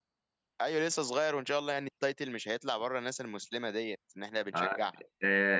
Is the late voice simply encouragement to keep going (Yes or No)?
No